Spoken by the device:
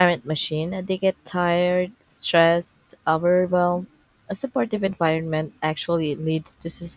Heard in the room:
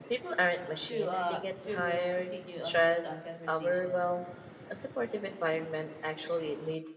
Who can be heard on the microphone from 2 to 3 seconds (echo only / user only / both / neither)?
both